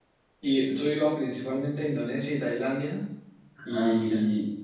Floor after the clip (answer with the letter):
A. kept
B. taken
A